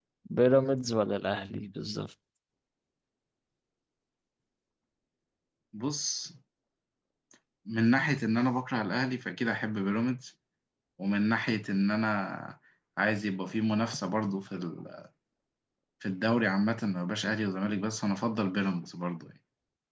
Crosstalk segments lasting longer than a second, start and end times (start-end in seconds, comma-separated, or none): none